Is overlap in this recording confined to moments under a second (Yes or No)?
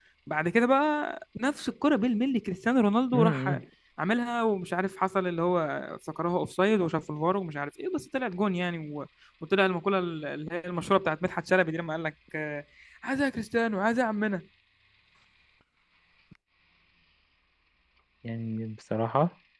Yes